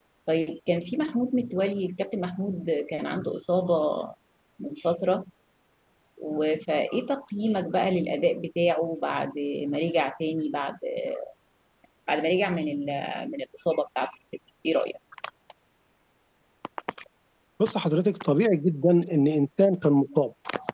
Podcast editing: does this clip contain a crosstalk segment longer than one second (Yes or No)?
No